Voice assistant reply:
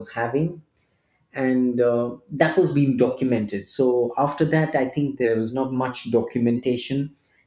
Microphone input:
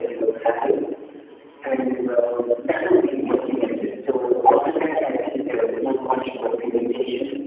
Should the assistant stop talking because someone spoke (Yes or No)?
No